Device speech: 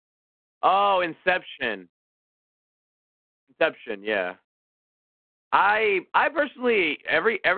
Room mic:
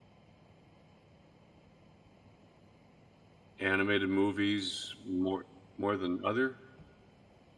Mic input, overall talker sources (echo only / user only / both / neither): user only